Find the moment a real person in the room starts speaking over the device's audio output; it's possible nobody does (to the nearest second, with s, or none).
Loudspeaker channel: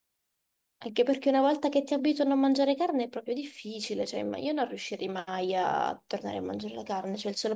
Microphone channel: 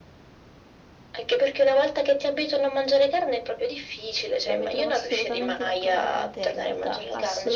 5 s